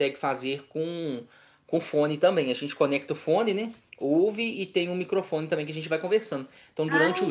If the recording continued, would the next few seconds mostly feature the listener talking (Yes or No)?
No